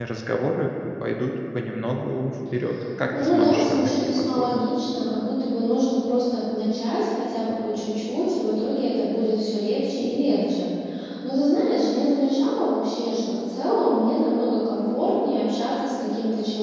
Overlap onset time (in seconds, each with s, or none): 3.1 s